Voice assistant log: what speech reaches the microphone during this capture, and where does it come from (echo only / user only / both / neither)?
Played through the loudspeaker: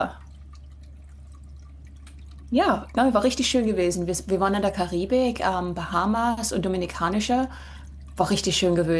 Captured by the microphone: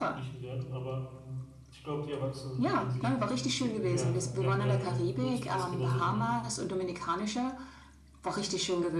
both